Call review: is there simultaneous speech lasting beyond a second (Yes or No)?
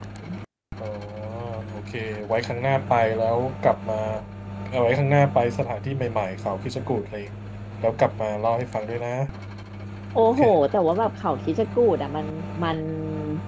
No